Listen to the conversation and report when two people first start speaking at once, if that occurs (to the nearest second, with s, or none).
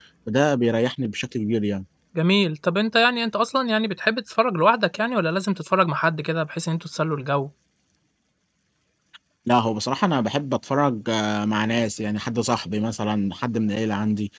none